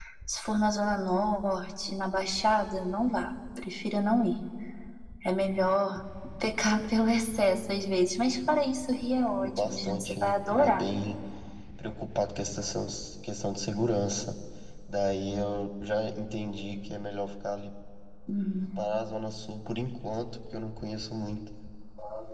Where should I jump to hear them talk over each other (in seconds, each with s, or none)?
9.4 s